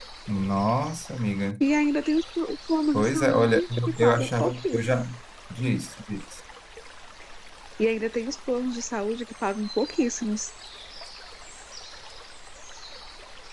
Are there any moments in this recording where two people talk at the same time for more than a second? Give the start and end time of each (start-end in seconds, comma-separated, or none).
2.9-5.0